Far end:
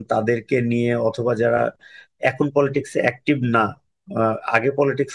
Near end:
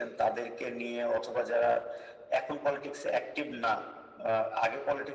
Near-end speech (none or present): none